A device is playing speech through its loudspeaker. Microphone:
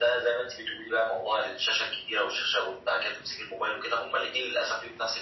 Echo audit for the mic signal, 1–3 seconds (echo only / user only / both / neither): echo only